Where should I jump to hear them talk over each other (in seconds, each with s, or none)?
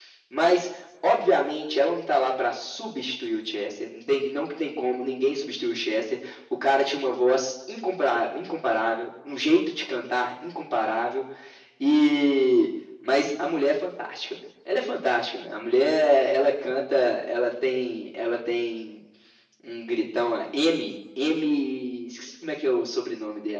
none